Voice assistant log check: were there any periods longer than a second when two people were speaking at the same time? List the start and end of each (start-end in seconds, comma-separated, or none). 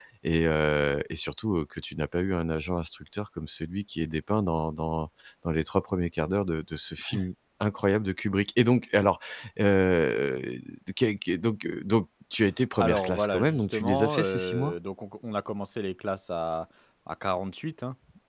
12.8-14.7